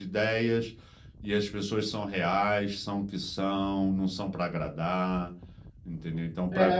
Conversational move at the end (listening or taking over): taking over